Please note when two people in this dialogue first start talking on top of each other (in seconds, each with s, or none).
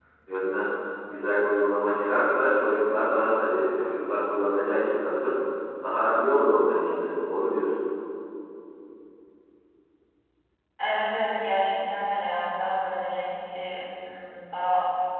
none